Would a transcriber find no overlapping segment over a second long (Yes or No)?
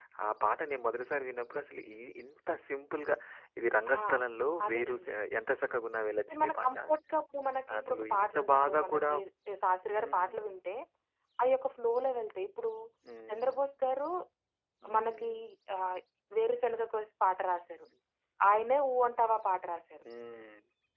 No